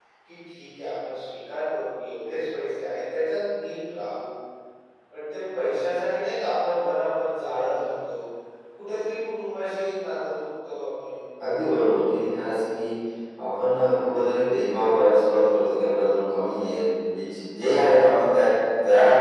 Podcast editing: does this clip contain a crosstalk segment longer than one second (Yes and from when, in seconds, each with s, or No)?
No